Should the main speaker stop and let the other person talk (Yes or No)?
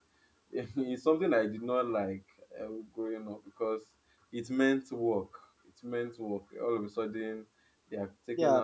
Yes